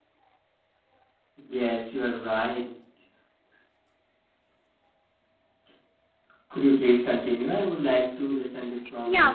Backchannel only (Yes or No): No